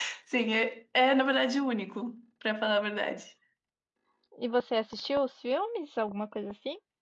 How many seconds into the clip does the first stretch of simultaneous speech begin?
none

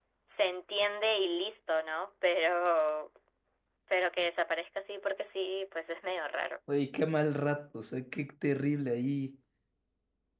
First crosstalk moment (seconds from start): none

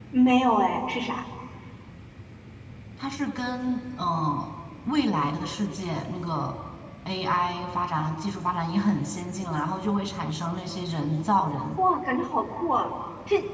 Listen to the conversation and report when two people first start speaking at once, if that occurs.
none

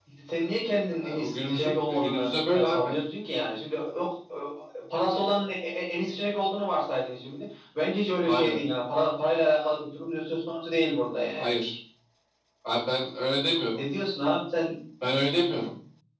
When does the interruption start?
1.2 s

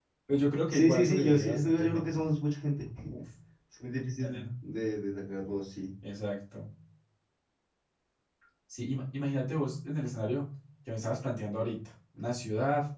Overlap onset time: 0.7 s

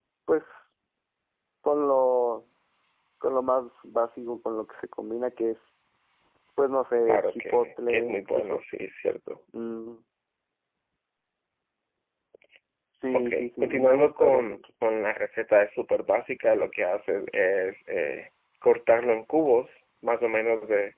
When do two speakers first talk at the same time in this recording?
7.0 s

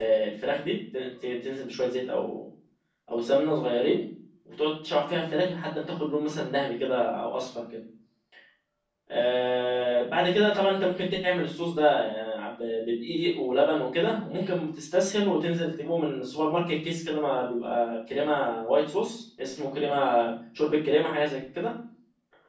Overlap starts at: none

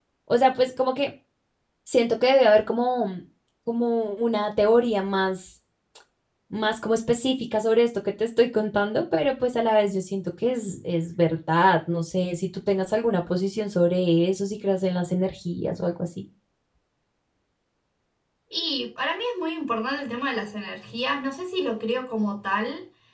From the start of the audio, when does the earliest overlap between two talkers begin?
none

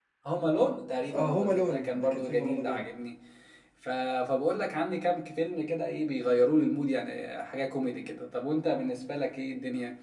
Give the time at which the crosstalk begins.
1.1 s

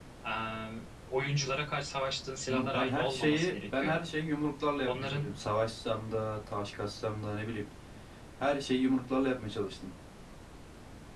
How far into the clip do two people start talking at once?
2.5 s

